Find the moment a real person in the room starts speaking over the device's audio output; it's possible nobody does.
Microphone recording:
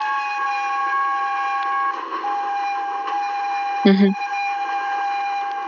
3.8 s

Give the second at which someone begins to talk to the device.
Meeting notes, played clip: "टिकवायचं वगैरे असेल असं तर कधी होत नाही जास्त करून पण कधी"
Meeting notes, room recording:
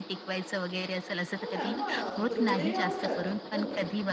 1.3 s

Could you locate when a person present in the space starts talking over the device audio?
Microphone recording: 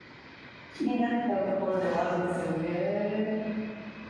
0.7 s

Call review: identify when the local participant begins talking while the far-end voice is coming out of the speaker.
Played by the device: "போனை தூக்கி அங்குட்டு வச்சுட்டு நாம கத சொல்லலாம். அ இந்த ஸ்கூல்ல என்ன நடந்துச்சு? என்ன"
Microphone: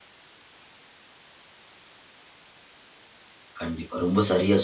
3.6 s

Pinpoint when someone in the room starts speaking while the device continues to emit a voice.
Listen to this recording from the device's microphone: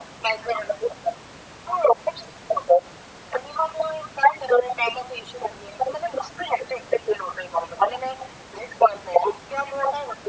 none

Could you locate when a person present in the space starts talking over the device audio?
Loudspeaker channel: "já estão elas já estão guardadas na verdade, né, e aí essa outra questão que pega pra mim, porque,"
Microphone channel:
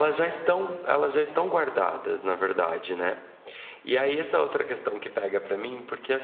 none

